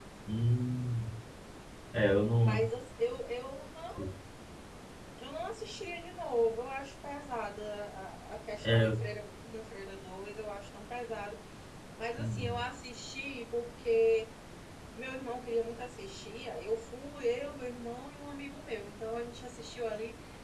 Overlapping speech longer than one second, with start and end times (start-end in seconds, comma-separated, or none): none